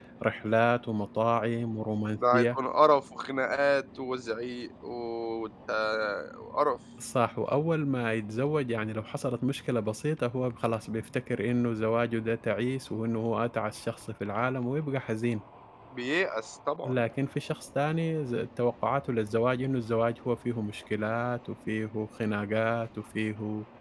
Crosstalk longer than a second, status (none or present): none